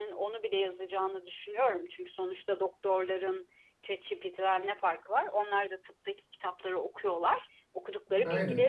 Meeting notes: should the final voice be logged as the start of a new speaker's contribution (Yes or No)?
No